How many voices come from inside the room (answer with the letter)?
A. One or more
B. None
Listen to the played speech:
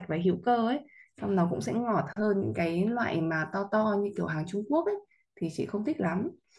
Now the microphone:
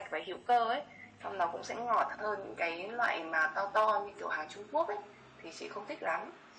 B